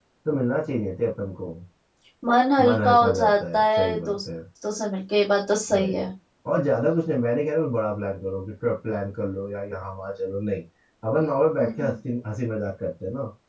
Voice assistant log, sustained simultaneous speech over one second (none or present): present